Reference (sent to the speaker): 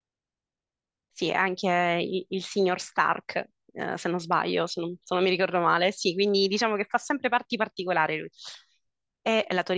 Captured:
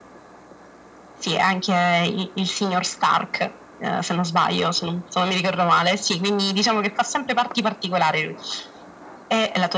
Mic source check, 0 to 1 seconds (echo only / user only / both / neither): neither